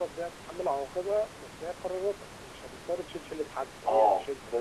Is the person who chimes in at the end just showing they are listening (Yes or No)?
No